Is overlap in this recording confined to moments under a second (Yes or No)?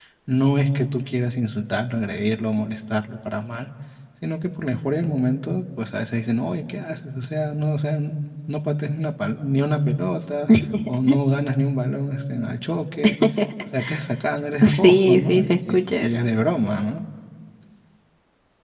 No